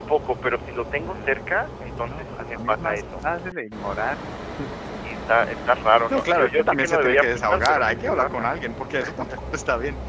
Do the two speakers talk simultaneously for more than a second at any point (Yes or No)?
Yes